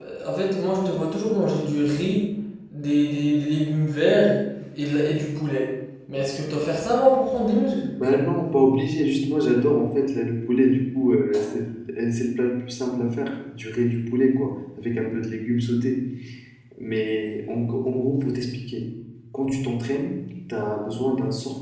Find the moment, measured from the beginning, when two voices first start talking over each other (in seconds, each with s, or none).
none